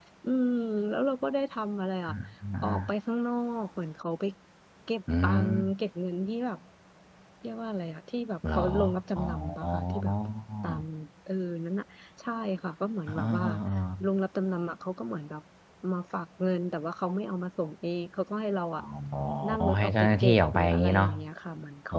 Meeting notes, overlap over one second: present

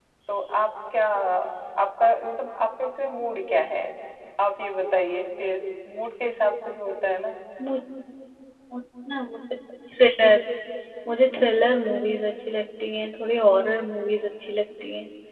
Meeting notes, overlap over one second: none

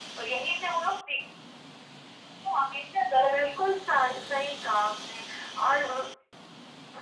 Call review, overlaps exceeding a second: none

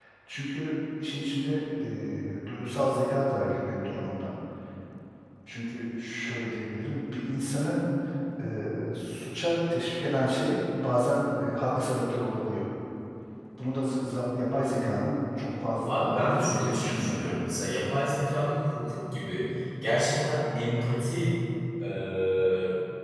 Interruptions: present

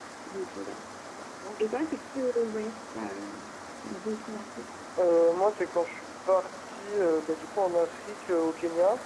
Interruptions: none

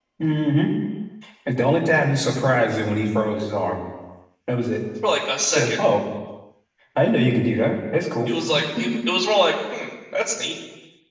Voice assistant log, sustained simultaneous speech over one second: none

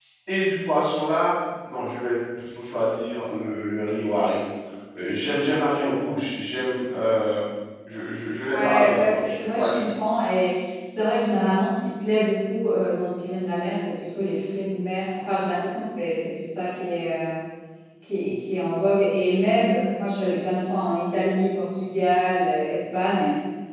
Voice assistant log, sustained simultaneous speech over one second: present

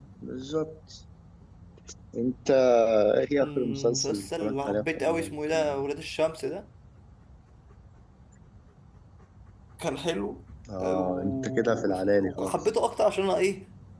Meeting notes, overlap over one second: present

